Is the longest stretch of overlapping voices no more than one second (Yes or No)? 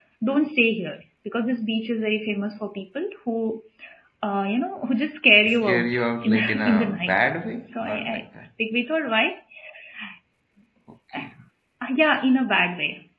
No